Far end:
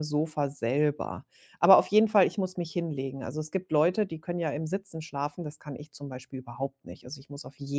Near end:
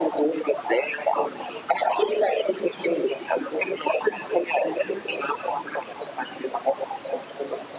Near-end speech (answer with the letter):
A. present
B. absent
B